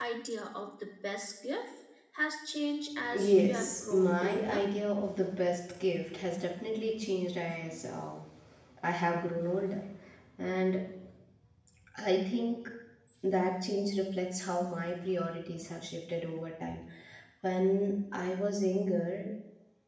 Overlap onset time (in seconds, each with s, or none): 3.1 s